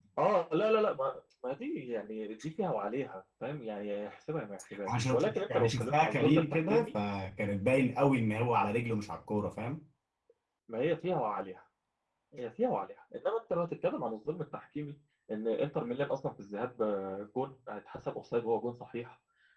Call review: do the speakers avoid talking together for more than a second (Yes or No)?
No